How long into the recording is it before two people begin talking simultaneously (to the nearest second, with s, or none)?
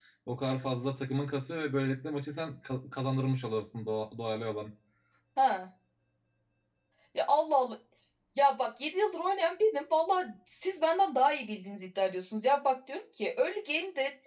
none